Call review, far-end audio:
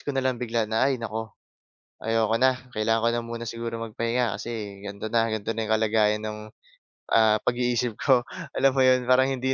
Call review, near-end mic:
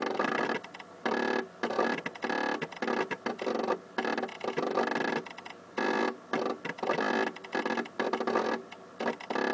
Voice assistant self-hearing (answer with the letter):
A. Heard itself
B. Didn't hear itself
B